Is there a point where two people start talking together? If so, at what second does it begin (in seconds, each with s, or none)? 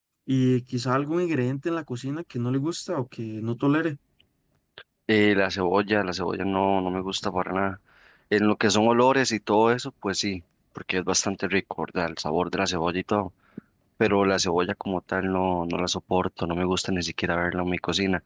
none